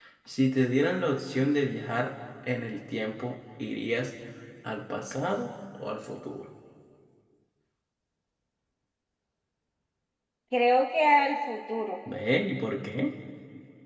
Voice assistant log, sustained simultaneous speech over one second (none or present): none